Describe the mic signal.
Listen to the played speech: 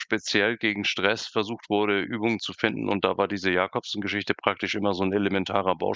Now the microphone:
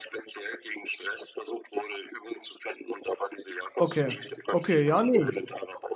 both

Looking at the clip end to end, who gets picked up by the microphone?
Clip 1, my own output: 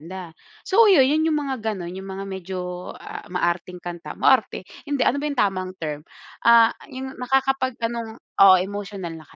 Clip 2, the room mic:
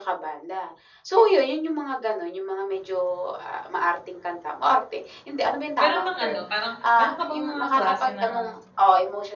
both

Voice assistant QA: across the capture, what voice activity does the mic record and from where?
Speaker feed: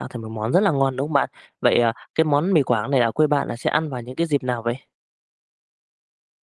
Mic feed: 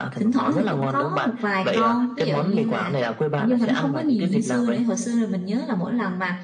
both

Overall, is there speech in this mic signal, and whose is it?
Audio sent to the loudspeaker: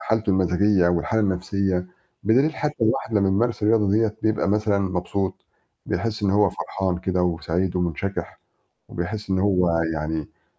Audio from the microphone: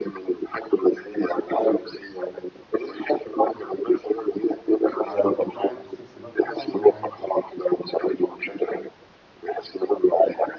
both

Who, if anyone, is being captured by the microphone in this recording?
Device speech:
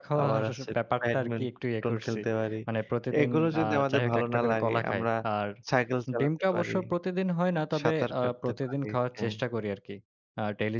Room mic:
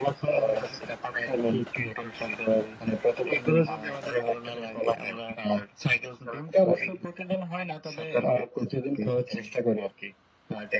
echo only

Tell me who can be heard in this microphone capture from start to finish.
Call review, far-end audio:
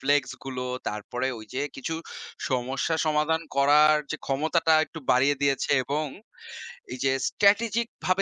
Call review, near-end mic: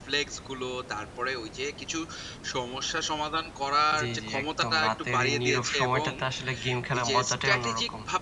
both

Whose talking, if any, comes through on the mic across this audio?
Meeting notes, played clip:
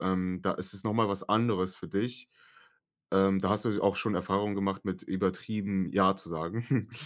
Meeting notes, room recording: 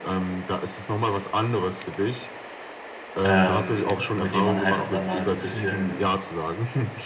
both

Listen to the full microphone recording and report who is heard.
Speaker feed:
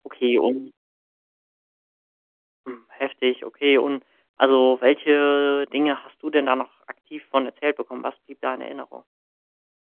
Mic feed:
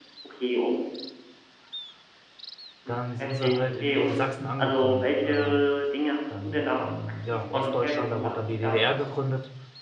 both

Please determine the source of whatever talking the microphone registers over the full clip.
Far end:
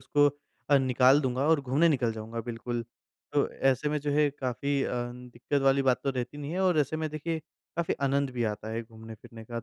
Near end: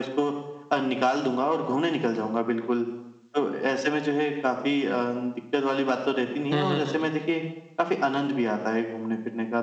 both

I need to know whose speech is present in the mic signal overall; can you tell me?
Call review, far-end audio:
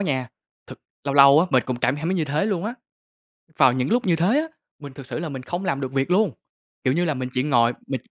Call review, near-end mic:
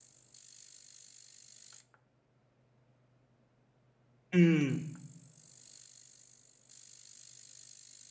user only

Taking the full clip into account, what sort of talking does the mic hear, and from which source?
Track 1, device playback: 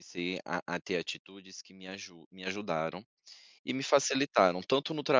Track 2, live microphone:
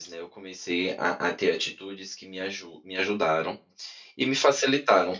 echo only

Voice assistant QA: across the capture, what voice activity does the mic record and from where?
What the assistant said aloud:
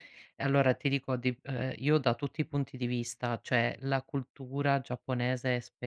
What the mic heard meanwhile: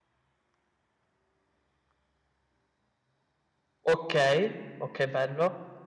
user only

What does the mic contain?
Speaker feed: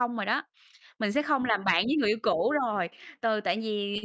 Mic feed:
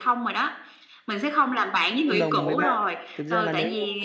both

